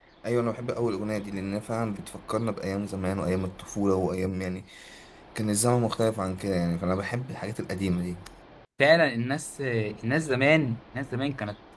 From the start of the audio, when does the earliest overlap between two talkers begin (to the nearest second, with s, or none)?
none